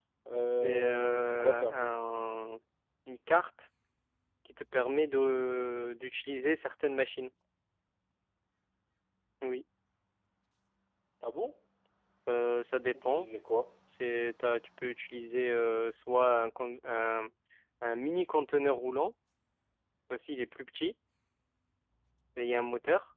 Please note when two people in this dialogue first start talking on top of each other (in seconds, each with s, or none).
0.6 s